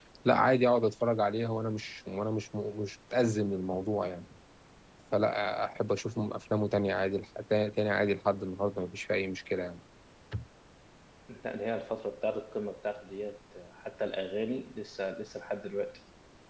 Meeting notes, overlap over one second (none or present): none